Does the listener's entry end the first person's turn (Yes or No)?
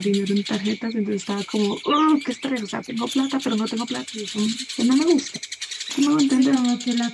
Yes